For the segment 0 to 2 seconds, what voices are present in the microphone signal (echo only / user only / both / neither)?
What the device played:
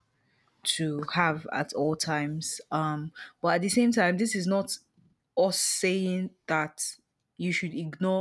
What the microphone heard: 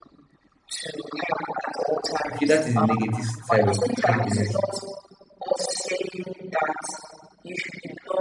echo only